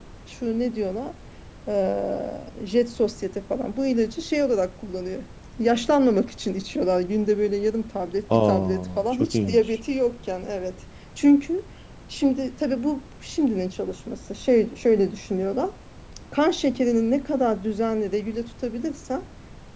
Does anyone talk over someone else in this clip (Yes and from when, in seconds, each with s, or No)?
Yes, from 8.3 s